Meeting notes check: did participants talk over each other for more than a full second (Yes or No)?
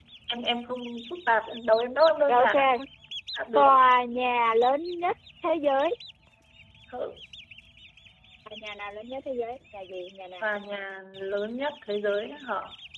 No